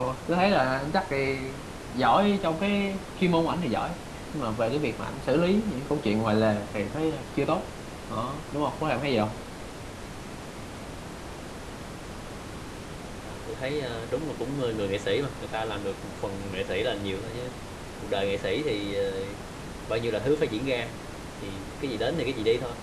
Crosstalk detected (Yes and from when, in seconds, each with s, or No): No